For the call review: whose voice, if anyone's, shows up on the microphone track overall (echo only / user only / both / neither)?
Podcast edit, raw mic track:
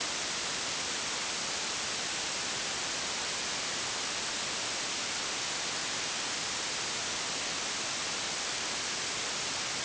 neither